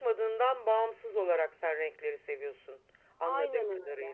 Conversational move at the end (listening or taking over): taking over